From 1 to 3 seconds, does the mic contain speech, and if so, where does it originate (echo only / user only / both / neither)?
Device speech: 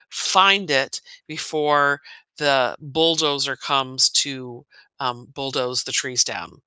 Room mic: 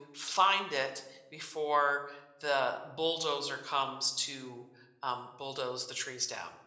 echo only